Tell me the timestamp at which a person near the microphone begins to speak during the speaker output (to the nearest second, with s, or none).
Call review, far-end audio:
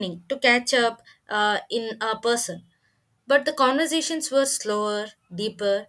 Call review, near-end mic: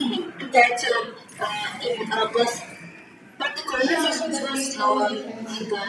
4 s